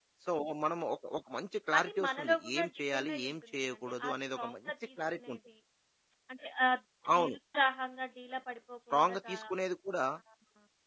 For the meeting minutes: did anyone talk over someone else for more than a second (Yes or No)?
Yes